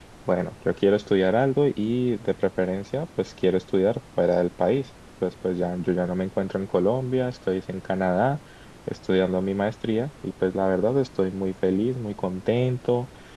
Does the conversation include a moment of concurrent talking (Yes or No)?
No